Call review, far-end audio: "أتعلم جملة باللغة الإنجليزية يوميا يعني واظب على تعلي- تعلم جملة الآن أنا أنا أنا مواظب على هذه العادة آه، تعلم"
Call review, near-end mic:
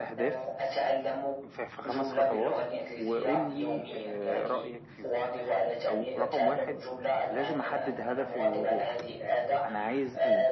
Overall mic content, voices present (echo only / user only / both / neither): both